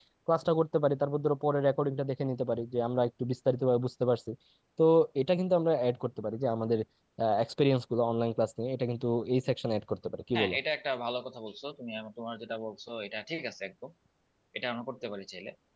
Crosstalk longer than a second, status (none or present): none